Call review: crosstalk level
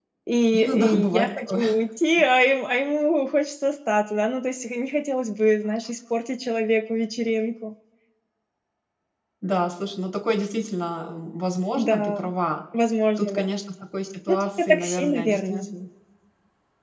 present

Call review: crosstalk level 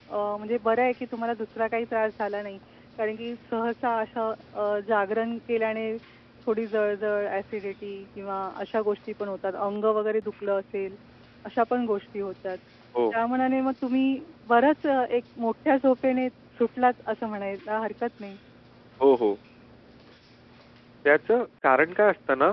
none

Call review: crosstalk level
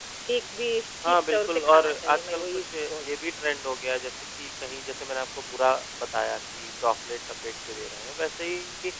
present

